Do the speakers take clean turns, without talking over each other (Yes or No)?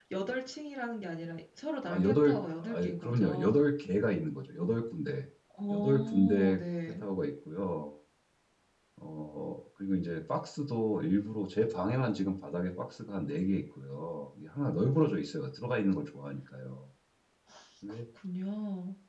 No